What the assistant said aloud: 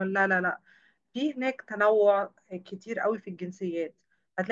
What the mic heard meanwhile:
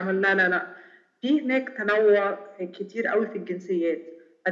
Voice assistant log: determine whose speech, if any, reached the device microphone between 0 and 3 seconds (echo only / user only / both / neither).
echo only